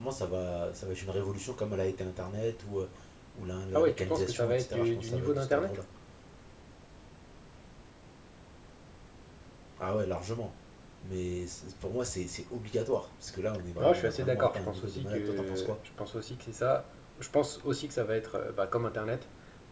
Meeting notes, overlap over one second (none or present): present